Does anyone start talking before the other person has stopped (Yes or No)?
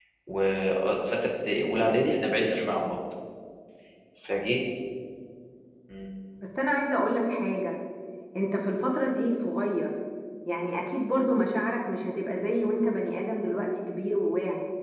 No